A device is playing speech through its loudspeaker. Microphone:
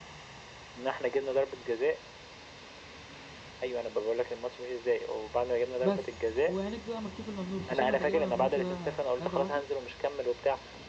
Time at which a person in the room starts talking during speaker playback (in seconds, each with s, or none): 5.8 s